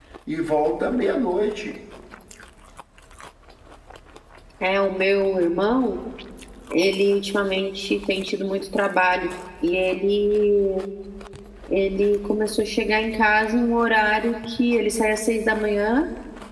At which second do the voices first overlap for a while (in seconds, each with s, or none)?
none